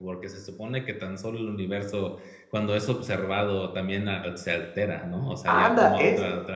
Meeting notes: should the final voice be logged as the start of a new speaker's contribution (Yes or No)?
Yes